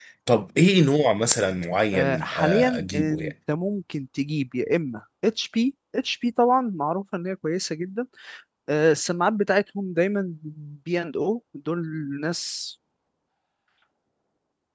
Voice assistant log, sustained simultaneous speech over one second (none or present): present